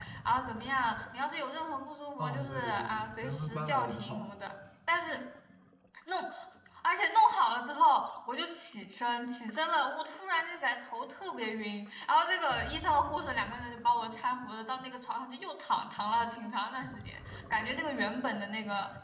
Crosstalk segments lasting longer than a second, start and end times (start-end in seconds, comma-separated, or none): 2.2-4.3